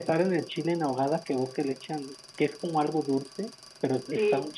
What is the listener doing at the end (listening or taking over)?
listening